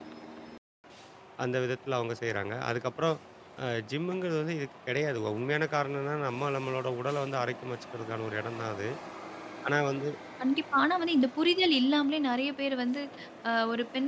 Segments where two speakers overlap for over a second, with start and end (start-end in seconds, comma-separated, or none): none